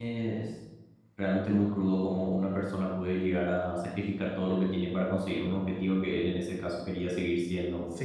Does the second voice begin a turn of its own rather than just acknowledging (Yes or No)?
Yes